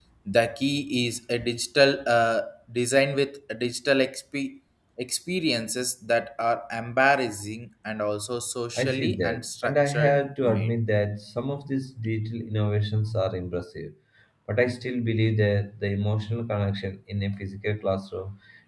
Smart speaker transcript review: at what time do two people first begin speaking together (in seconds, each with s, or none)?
8.8 s